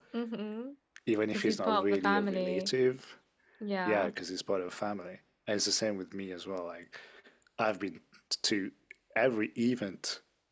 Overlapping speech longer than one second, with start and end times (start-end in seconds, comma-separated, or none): 1.3-2.7